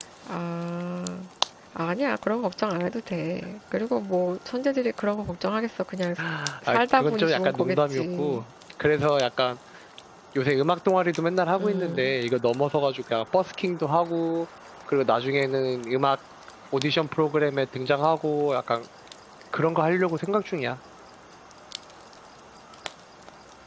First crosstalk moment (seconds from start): 6.7 s

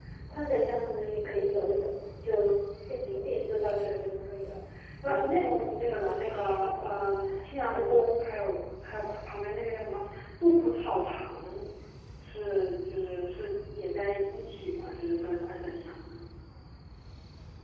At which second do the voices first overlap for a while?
5.0 s

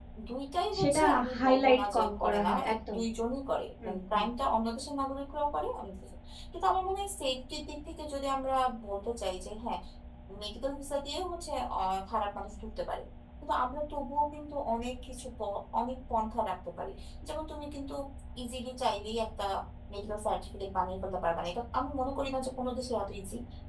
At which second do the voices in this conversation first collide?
0.8 s

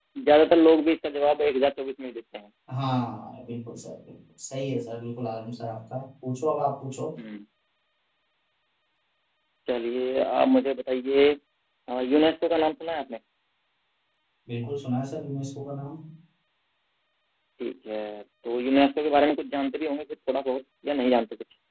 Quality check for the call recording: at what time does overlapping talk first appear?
none

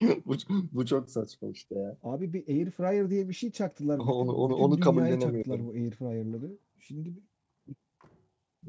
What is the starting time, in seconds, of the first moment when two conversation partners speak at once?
4.0 s

